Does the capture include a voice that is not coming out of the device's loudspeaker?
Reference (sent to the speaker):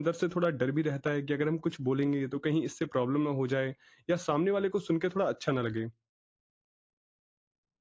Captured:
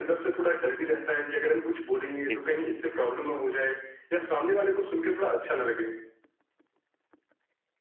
Yes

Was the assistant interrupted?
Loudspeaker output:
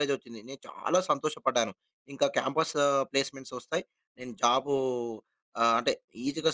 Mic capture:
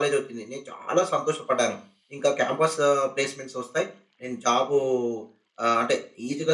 No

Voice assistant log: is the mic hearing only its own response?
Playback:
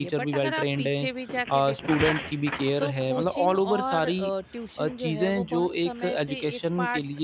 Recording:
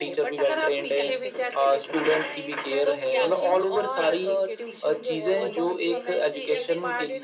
No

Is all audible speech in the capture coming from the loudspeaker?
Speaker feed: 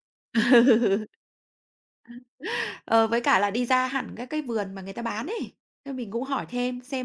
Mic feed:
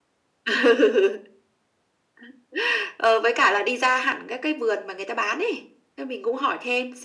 Yes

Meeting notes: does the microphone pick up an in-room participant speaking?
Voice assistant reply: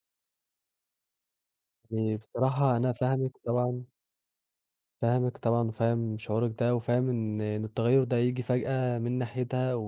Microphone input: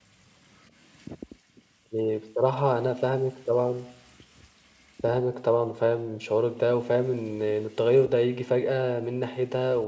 No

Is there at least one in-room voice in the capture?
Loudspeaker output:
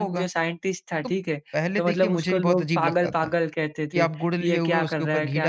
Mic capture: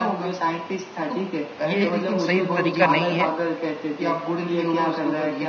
Yes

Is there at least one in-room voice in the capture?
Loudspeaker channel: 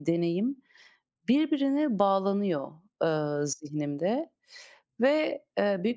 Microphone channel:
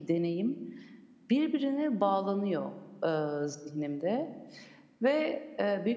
No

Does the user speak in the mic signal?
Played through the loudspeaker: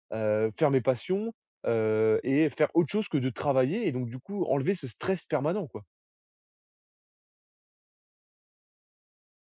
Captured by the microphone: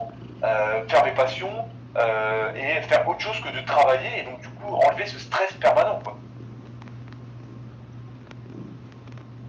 No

